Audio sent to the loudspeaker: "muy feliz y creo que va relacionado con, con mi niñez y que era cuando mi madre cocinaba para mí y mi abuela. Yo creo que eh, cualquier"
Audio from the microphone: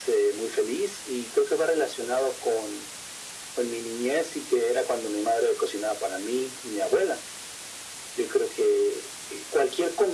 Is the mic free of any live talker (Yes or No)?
Yes